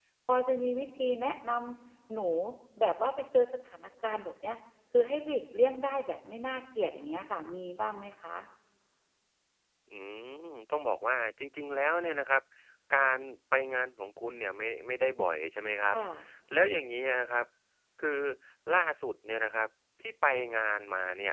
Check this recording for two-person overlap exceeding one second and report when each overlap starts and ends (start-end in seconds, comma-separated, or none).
none